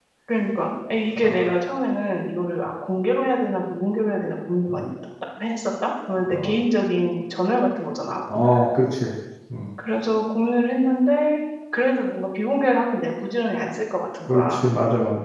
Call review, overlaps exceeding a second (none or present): none